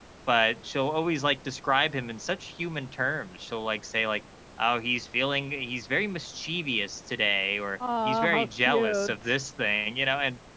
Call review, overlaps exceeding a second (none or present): present